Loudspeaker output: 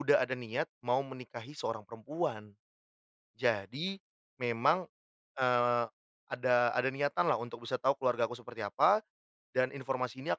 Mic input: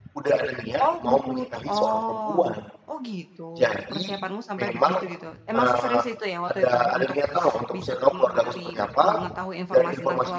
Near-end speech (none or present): present